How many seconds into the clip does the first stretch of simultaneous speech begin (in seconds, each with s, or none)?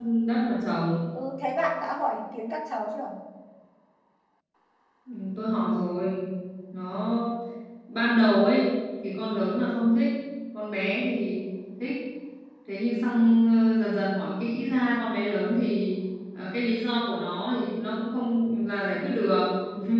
none